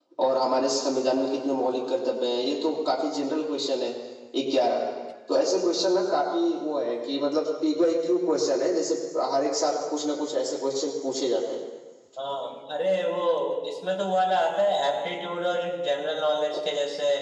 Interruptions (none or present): none